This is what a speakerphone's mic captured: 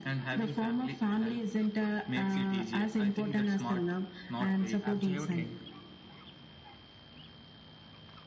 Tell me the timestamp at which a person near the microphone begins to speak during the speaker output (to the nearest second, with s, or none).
5 s